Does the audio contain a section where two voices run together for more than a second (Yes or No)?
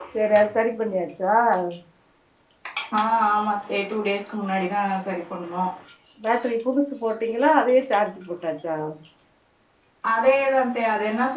No